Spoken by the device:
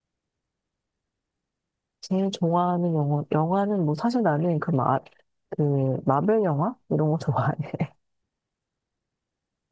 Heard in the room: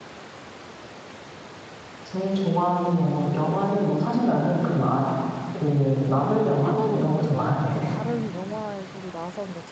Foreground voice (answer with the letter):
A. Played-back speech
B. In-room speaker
A